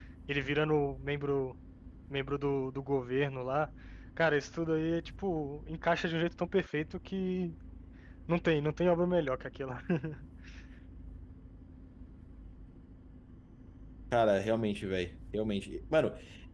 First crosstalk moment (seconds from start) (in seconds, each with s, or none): none